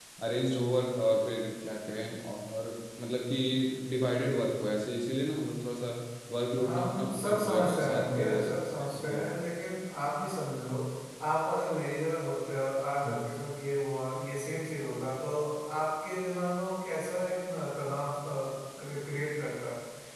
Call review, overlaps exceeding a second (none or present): present